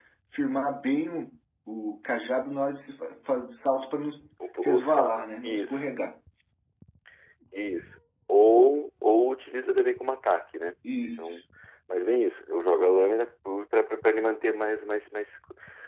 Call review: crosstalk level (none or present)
present